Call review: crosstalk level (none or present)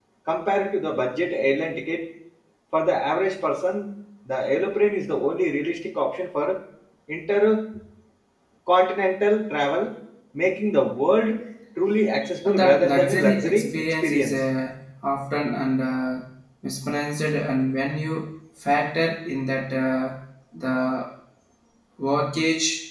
present